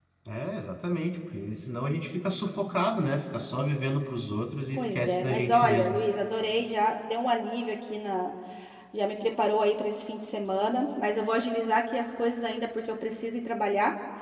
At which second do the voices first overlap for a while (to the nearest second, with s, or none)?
5 s